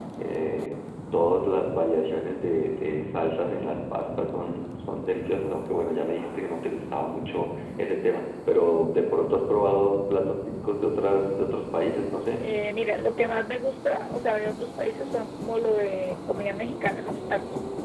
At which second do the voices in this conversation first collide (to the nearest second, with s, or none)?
none